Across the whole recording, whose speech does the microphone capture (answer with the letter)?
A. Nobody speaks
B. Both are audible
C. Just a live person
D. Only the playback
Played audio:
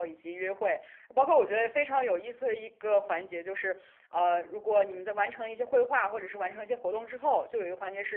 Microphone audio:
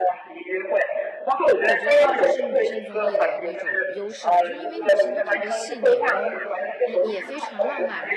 B